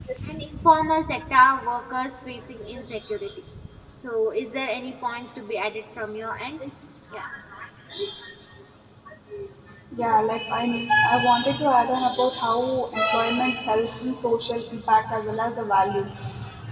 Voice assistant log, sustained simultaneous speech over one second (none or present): none